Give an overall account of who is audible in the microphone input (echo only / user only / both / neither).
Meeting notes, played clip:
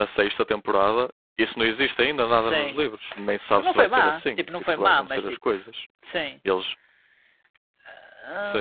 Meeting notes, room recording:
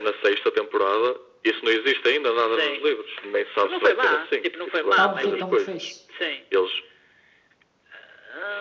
both